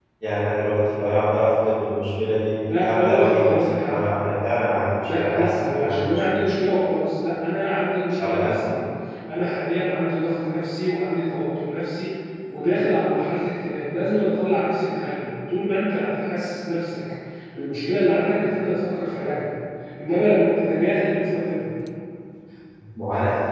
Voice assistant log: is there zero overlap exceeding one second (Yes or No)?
No